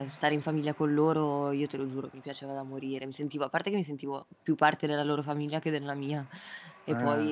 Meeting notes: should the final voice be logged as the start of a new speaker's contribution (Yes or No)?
No